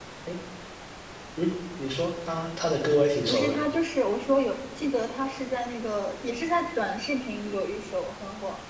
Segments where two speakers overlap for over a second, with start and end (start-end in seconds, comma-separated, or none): none